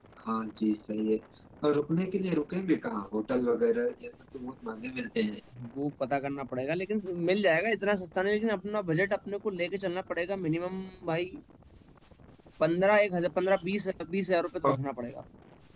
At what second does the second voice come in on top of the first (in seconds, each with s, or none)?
none